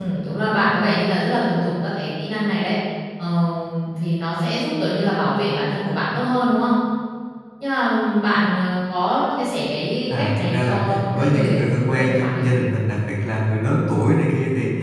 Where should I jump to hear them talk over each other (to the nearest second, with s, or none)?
10 s